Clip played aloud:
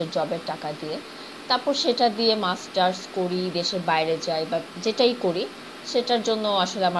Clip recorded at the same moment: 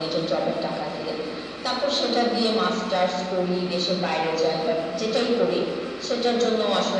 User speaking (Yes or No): No